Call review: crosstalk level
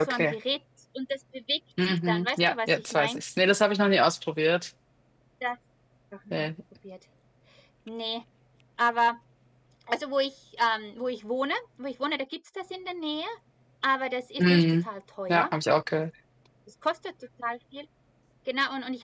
present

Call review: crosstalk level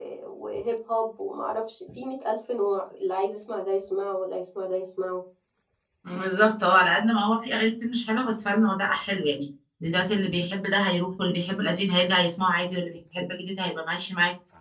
none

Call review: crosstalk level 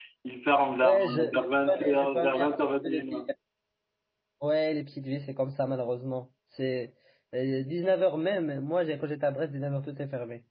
present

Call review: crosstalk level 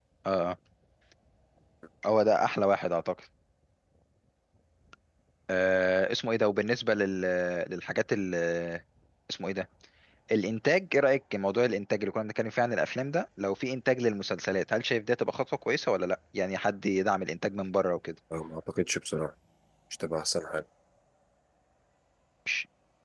none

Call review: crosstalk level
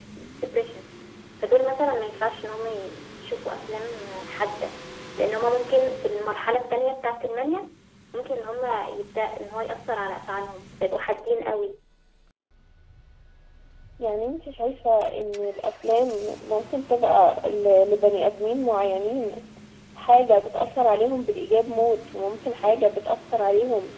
none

